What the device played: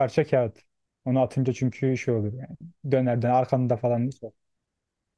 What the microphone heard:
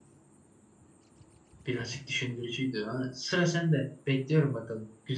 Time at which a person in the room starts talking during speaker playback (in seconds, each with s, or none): 1.6 s